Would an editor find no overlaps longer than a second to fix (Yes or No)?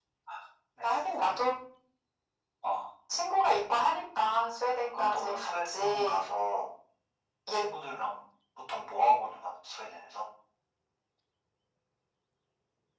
No